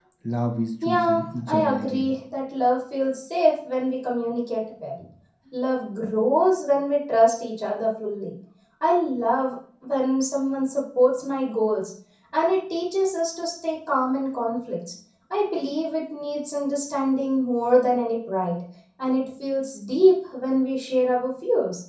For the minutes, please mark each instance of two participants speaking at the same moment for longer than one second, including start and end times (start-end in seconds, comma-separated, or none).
0.8-2.1